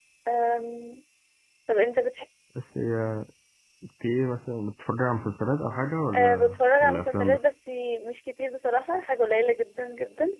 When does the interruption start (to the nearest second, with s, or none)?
6 s